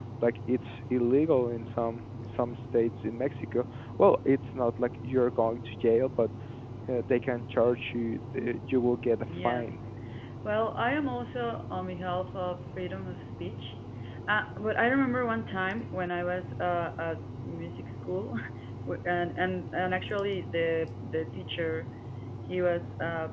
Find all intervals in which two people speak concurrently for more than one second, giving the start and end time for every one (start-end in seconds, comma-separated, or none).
none